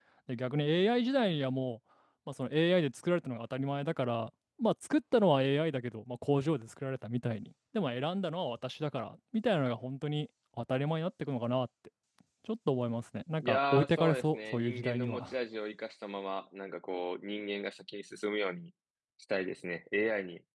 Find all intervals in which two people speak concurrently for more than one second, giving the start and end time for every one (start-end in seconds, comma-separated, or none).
13.4-15.3